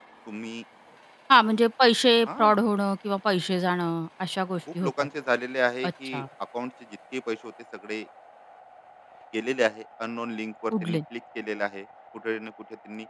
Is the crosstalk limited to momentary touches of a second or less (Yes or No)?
Yes